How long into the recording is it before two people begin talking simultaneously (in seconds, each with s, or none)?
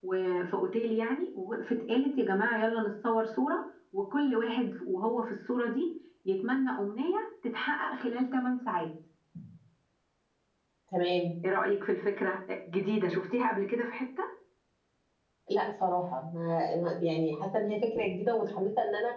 none